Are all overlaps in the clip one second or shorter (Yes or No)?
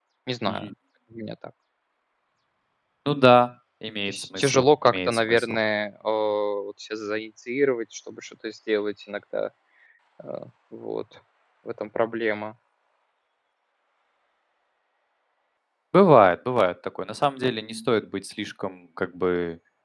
No